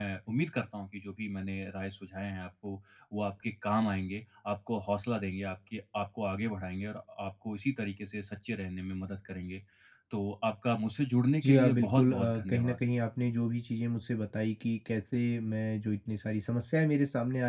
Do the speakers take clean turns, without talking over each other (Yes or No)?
No